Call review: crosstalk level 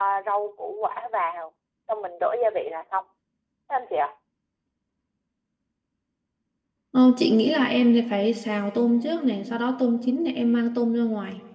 none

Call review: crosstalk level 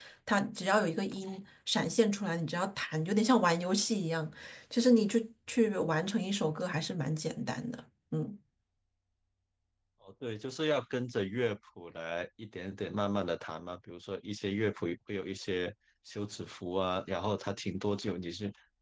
none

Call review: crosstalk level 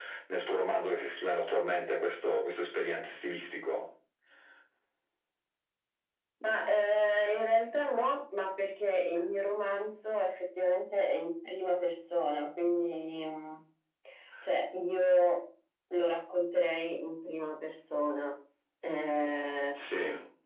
none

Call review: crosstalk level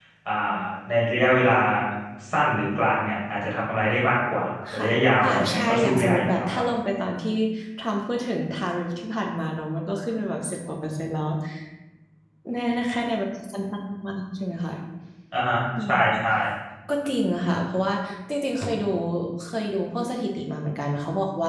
present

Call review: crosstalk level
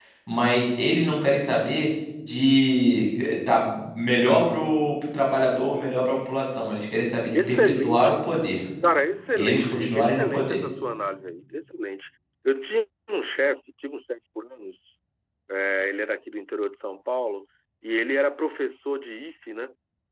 present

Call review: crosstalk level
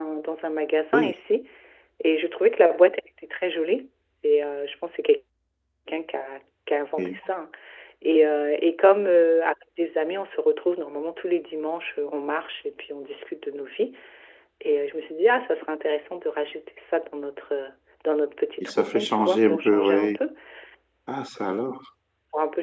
present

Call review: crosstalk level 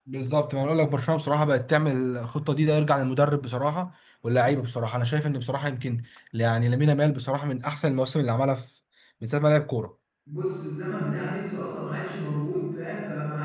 none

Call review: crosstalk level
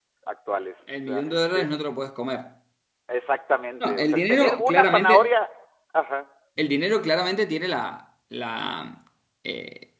present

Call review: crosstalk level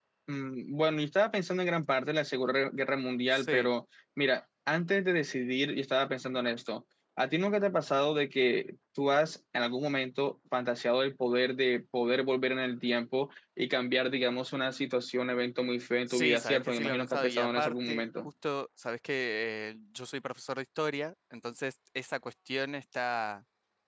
present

